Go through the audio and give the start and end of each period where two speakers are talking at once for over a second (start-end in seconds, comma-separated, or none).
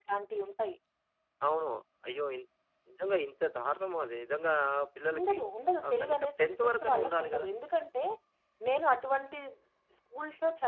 5.8-7.5